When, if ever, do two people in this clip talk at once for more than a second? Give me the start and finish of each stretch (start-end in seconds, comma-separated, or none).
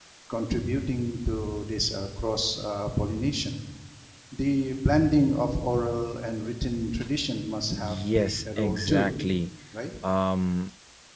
7.8-9.1